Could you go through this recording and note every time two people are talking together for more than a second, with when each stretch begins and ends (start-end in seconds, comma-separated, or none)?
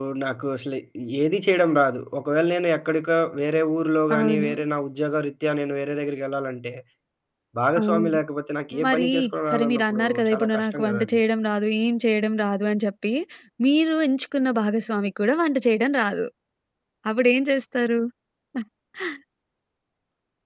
9.5-11.2